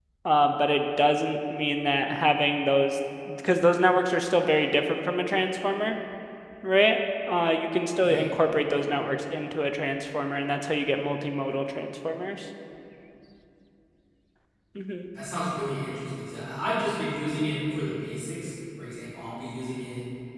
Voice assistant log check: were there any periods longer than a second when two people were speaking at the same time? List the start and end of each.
none

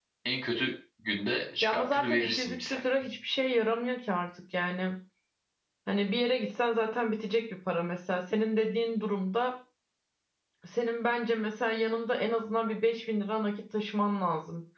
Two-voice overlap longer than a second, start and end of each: 1.6-2.8

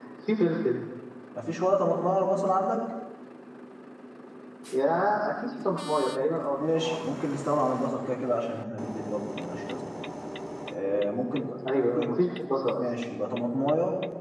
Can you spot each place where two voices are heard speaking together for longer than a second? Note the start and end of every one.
none

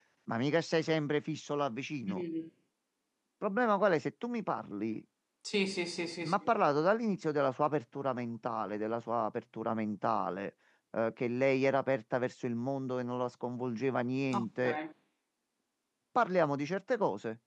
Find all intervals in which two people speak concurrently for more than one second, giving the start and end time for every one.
none

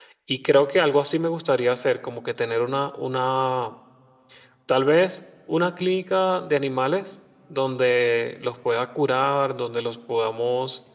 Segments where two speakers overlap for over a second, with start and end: none

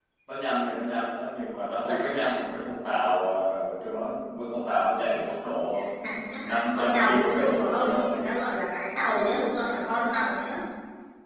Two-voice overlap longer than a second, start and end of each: 6.4-8.2

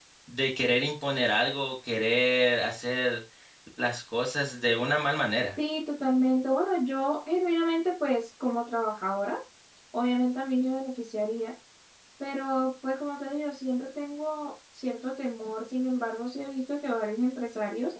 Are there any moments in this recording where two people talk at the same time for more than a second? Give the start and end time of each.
none

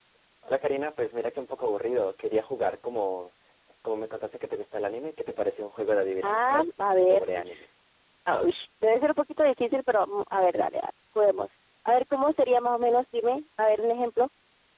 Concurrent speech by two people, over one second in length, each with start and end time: 6.2-7.6

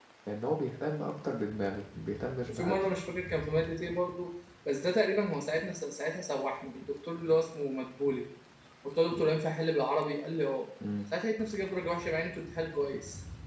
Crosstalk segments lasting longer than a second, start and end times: none

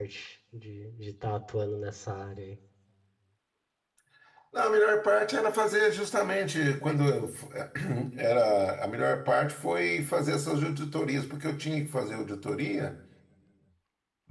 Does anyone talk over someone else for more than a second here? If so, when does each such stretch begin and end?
none

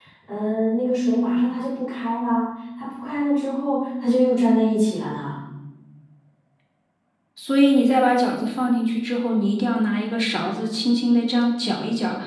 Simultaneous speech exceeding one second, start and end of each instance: none

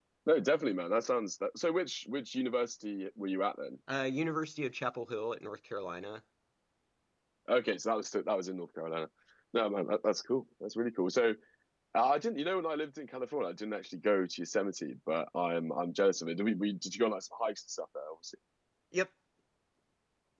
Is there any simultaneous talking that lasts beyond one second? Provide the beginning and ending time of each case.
none

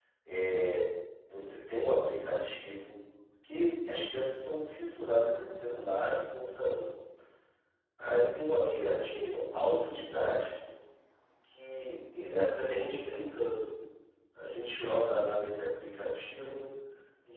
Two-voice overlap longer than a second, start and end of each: 8.6-9.9

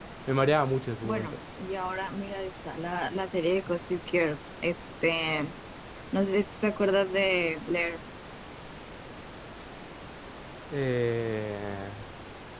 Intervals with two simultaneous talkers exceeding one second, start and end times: none

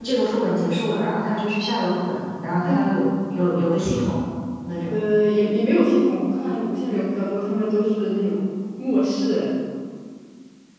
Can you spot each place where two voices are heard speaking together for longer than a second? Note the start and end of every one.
none

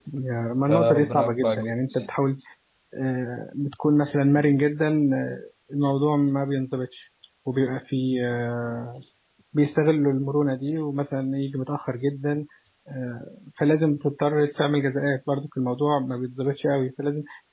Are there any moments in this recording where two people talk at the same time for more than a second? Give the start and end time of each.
0.7-2.1

